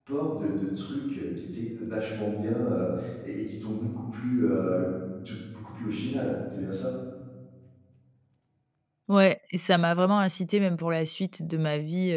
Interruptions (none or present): none